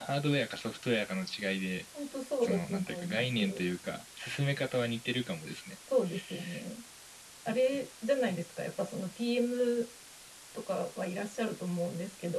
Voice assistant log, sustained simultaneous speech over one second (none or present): present